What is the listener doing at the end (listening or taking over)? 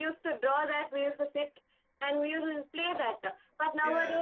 listening